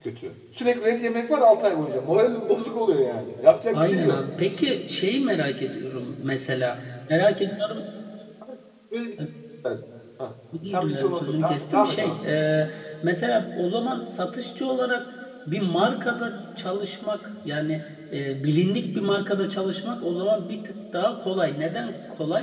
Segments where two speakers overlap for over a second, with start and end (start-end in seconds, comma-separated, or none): 10.6-12.1